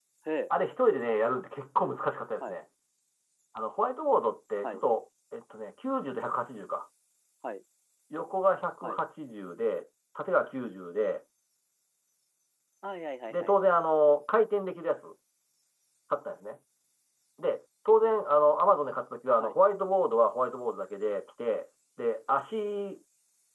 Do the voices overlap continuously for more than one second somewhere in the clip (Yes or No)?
No